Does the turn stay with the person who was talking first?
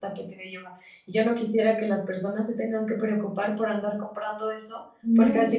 Yes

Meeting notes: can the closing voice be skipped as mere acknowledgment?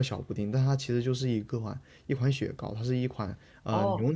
No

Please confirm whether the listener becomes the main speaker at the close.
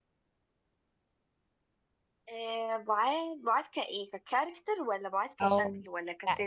Yes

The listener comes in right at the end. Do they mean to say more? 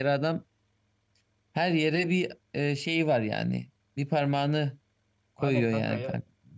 Yes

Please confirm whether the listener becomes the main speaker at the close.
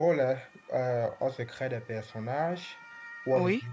No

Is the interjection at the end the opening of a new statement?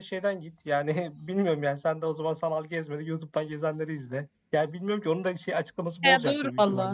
Yes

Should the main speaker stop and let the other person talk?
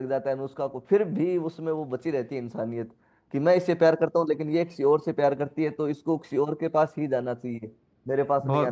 Yes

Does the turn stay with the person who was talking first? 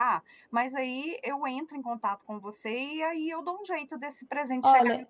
No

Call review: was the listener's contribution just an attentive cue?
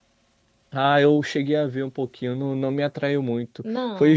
Yes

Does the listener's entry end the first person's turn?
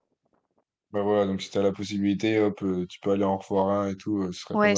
Yes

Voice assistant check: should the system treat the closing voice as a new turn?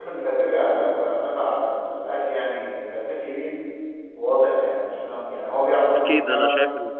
Yes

